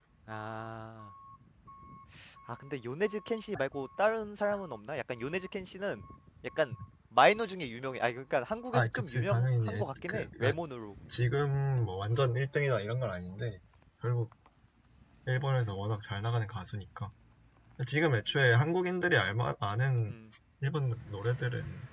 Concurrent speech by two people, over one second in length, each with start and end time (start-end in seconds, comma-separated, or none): 8.7-10.5